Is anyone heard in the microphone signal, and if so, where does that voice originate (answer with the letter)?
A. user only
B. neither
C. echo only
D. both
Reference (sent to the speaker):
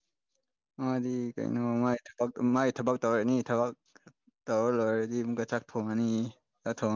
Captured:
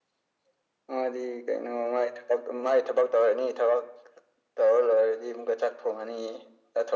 C